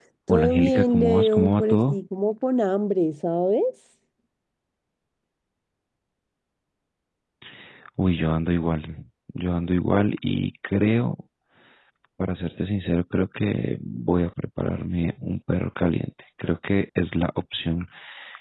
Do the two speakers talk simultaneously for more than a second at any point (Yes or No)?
Yes